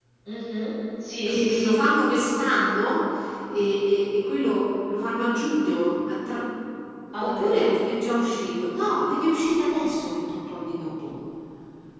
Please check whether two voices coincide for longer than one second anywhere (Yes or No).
No